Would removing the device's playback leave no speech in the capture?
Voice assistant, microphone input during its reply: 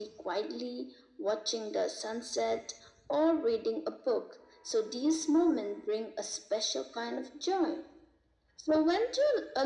Yes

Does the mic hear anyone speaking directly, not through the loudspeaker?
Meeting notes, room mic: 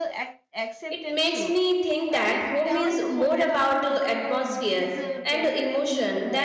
Yes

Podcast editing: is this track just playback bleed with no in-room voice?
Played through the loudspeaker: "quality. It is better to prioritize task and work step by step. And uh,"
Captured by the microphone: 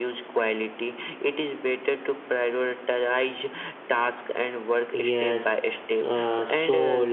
No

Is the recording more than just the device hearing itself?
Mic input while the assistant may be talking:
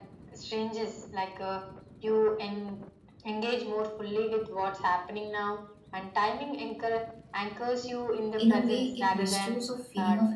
Yes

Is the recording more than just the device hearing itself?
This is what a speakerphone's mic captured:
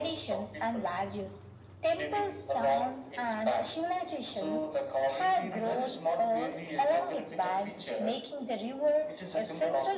No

